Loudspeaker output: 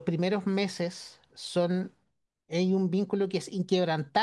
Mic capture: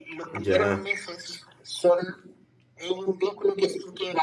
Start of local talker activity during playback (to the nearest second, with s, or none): 0 s